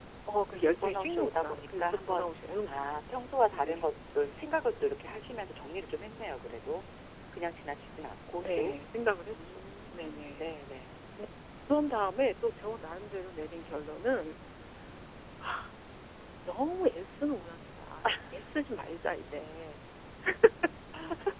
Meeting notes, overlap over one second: present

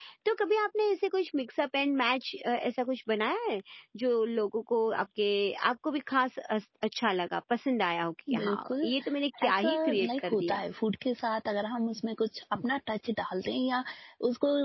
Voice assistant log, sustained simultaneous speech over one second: present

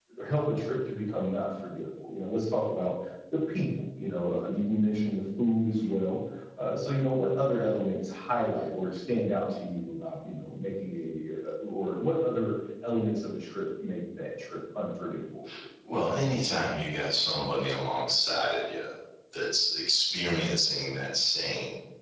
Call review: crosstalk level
none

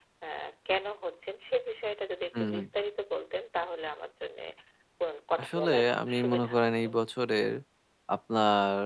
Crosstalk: present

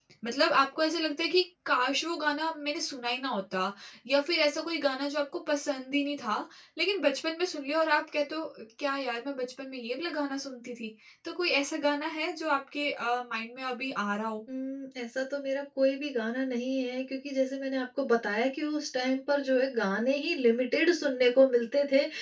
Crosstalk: none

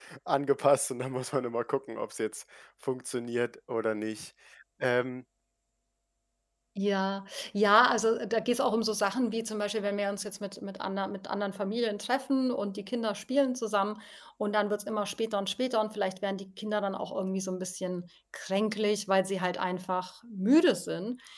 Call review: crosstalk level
none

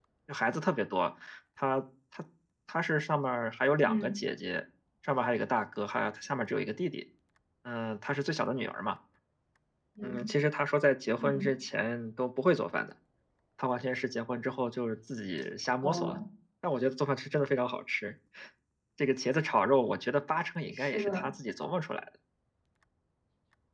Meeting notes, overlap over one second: none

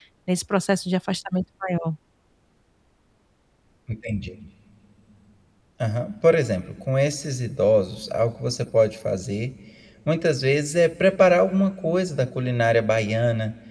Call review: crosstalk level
none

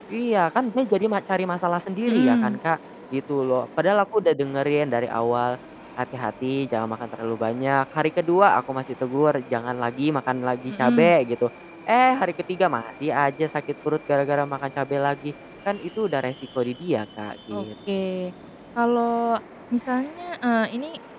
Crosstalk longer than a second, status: none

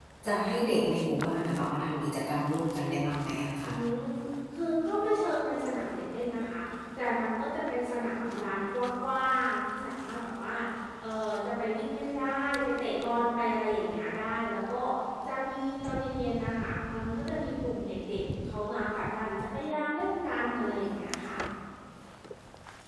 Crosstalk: none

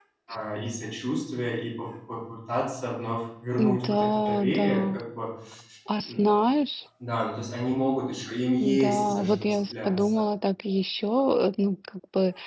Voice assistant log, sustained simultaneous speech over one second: present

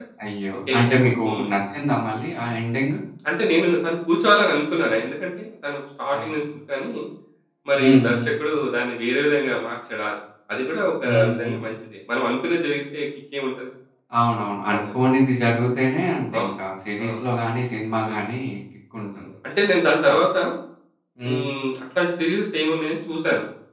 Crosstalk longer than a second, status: none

